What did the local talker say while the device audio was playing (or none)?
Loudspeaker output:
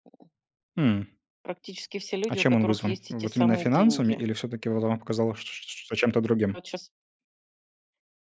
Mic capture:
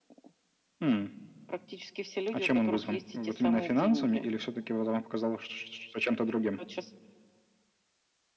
none